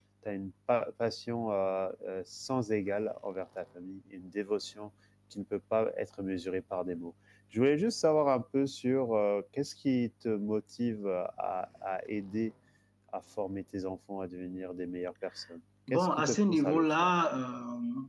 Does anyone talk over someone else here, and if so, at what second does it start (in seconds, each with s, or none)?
15.9 s